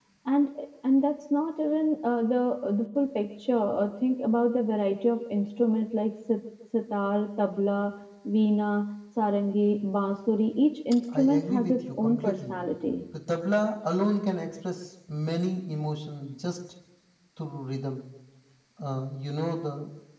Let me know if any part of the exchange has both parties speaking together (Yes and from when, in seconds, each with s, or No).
Yes, from 11.1 s